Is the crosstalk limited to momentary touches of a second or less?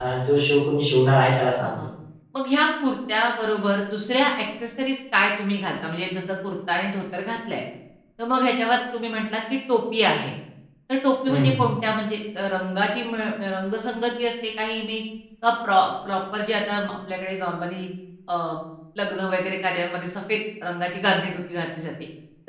Yes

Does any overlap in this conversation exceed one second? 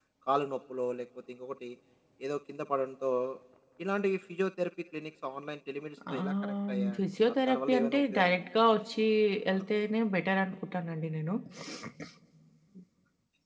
Yes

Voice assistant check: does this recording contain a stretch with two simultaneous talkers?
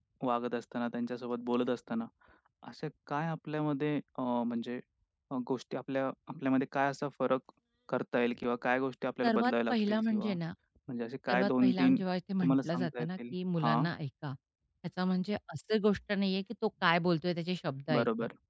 Yes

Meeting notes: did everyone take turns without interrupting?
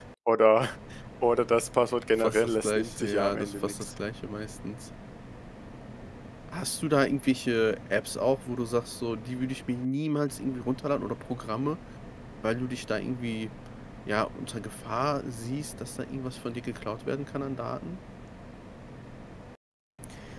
No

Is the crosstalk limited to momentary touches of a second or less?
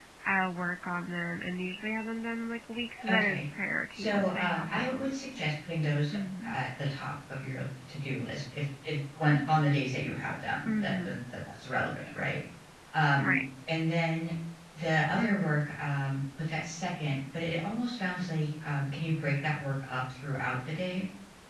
No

